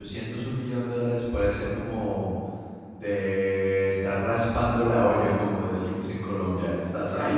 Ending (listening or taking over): taking over